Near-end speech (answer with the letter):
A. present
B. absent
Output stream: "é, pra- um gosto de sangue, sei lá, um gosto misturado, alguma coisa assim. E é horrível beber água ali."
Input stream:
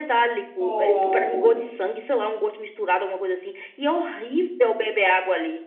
A